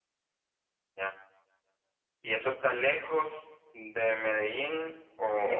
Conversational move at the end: taking over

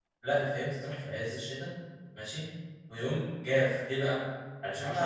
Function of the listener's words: listening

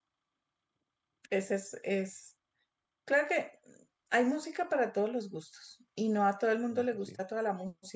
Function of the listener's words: listening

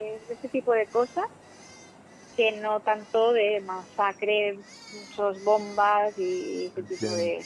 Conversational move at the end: taking over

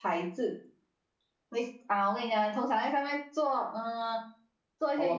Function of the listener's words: taking over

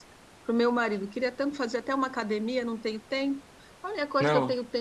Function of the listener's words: listening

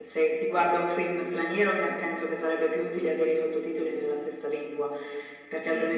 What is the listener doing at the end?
listening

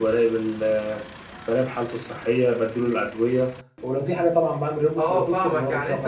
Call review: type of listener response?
taking over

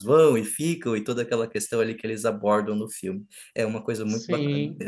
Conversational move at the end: taking over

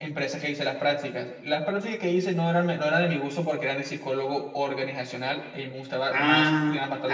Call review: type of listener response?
taking over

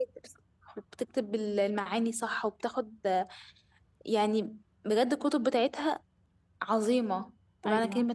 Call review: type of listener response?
taking over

